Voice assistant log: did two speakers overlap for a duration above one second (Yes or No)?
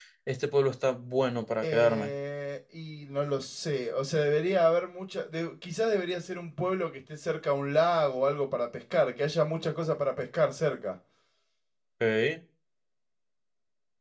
No